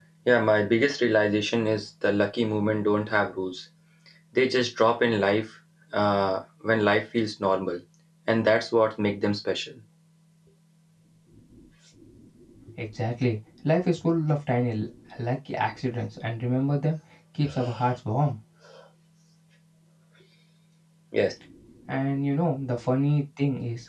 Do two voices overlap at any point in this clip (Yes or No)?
No